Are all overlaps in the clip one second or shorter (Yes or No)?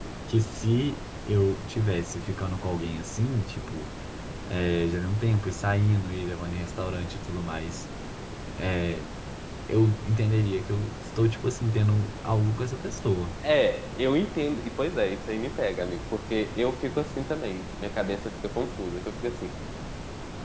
Yes